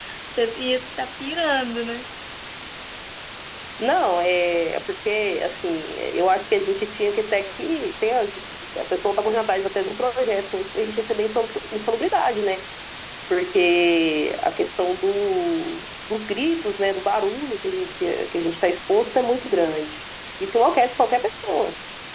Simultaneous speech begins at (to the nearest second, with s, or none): none